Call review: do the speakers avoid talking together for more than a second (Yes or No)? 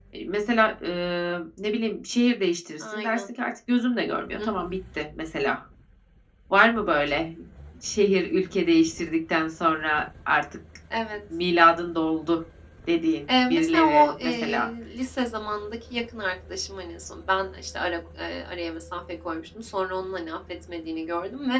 No